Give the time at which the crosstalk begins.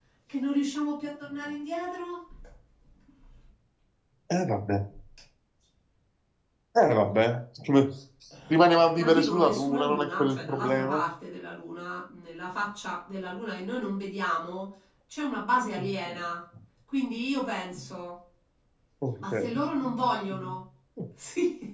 9.0 s

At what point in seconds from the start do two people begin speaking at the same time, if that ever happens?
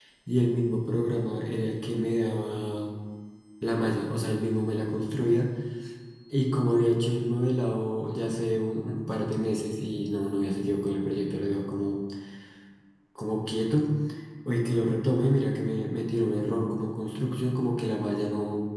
none

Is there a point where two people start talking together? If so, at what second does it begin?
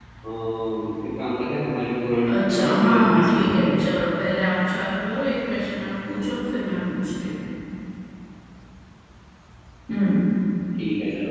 2.2 s

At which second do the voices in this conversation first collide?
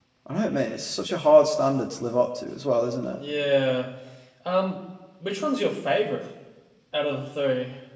none

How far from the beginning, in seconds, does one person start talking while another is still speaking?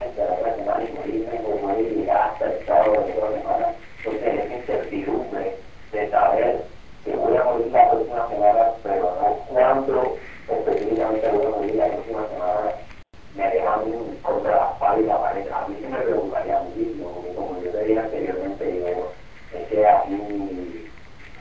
none

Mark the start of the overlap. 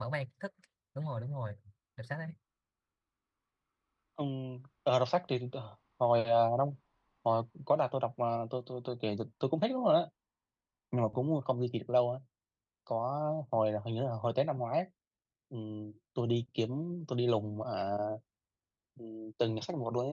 none

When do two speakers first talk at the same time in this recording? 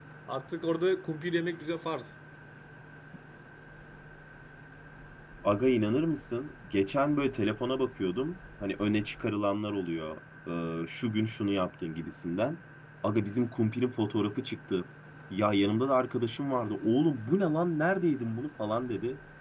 none

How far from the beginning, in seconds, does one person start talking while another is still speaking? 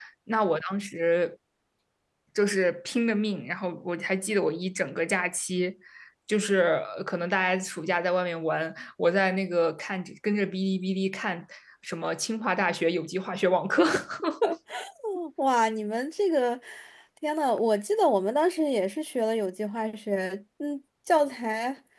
none

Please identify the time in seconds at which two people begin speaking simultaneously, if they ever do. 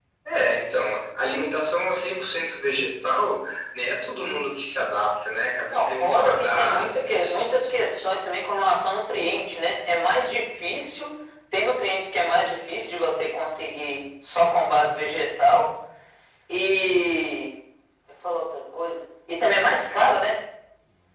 5.7 s

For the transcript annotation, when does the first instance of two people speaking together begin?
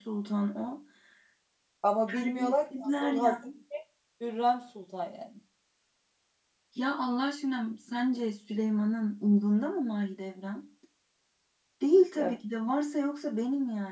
2.1 s

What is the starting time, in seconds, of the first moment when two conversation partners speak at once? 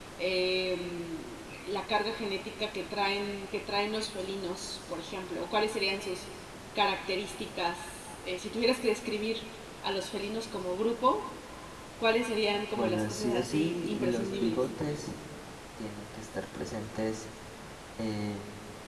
12.8 s

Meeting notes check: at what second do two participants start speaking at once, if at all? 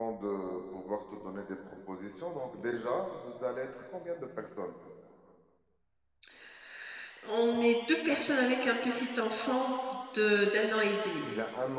none

